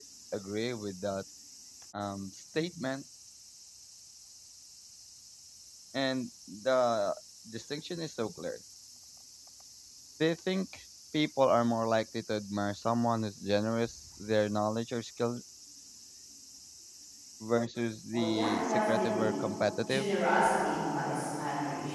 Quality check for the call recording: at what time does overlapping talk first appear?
18.1 s

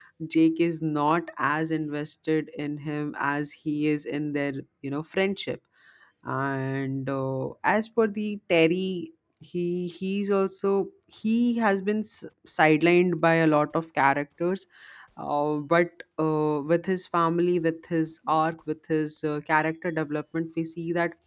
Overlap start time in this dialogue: none

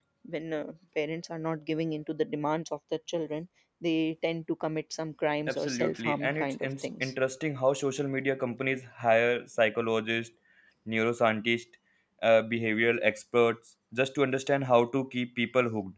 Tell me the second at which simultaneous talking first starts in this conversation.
5.5 s

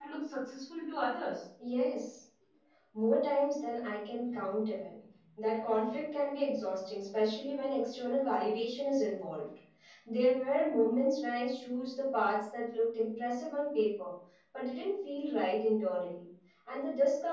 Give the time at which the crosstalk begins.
none

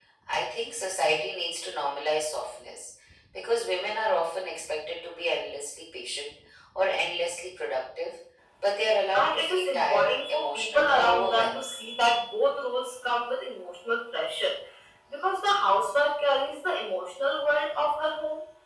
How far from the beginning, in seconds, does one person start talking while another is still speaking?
9.1 s

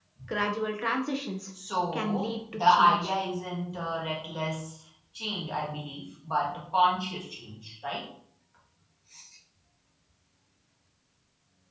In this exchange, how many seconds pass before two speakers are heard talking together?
1.9 s

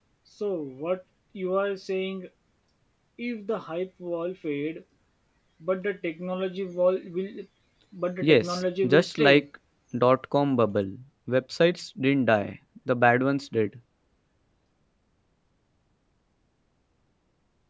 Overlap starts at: 8.2 s

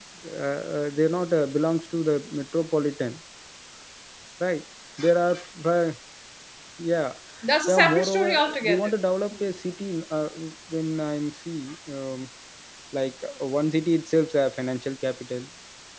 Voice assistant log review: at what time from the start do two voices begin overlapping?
7.7 s

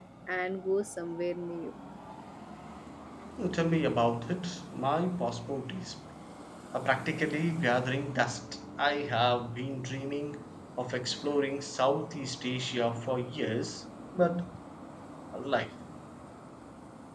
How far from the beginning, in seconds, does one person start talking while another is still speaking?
none

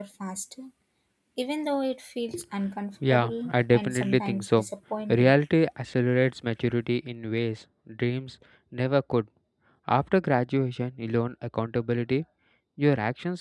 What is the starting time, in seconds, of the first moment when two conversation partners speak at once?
3.0 s

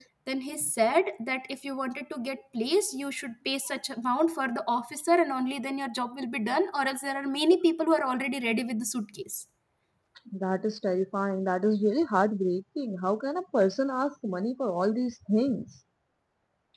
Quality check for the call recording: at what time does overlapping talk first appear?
none

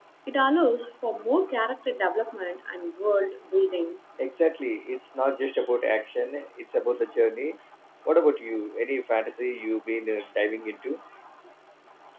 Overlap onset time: none

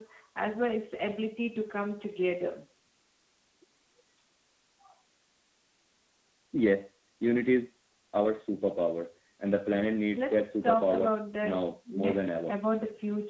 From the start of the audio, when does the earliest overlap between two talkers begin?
10.2 s

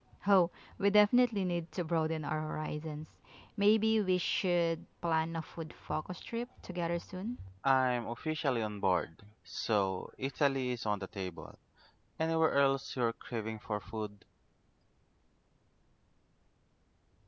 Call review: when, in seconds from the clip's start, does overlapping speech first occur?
none

